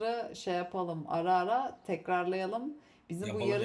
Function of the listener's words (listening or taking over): listening